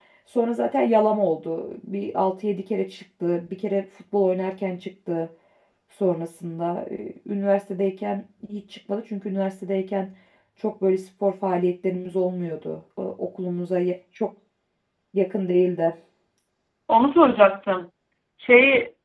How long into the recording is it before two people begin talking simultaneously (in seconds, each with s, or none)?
none